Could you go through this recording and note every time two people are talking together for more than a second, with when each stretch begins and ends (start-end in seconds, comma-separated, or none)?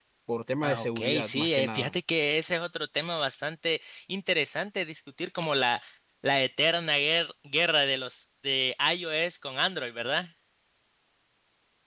0.7-1.9